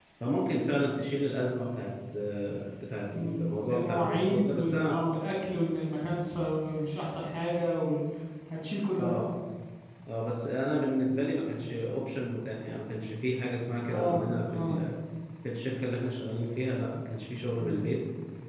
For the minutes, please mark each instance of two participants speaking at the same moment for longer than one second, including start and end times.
3.1-5.0

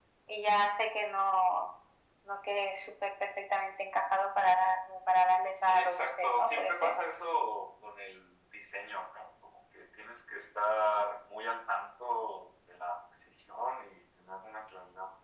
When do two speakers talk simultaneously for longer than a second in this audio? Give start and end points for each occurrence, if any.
5.6-6.9

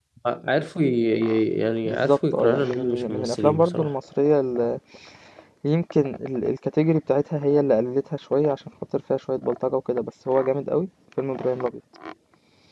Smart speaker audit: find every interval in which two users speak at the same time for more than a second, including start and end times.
1.9-3.9

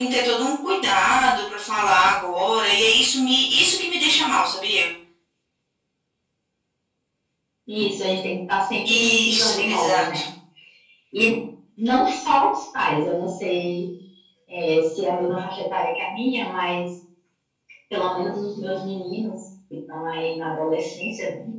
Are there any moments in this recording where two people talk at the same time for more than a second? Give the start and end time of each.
8.8-10.2

